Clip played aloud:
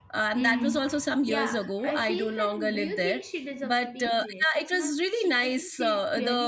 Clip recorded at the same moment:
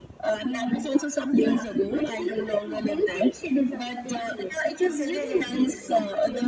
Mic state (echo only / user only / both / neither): both